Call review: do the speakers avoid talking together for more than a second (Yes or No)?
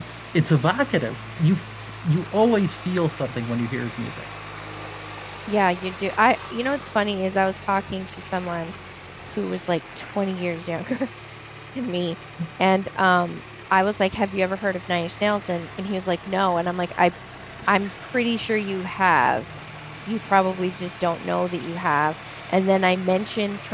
Yes